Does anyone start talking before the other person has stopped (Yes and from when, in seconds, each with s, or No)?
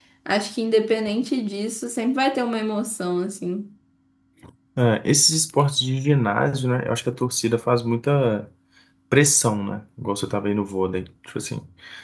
No